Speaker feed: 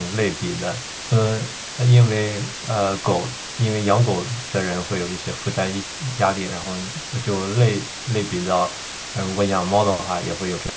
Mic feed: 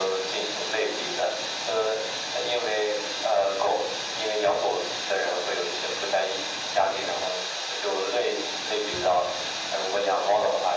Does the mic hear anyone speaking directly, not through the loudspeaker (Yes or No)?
No